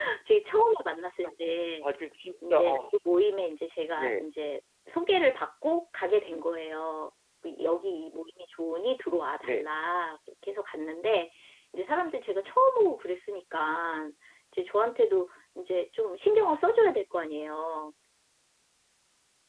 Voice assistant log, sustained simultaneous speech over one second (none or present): none